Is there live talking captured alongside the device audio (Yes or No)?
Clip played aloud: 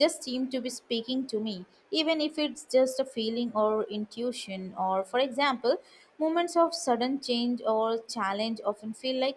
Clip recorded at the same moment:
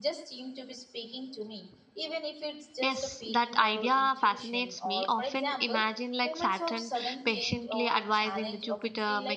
Yes